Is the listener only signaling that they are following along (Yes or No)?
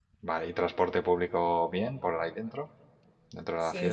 No